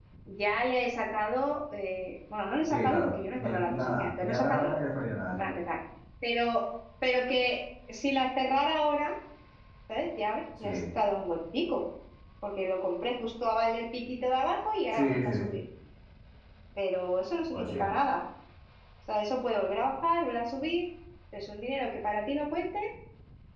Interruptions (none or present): present